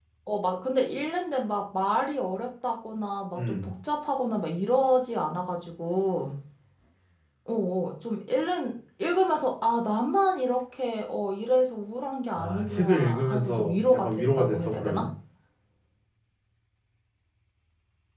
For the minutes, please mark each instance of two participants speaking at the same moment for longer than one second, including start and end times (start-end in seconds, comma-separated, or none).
12.3-15.1